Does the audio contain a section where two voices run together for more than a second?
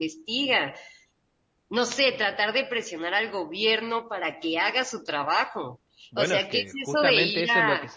Yes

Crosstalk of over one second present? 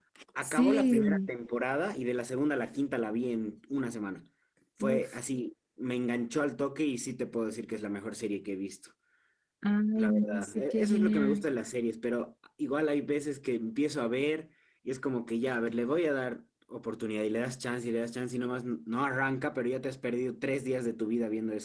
Yes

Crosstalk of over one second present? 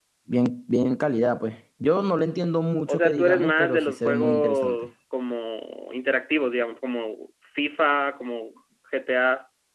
Yes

